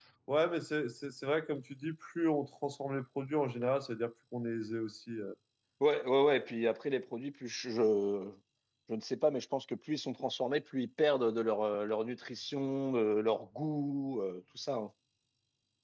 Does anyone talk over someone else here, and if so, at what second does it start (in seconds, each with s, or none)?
none